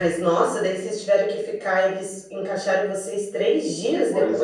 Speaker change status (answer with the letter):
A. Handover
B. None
A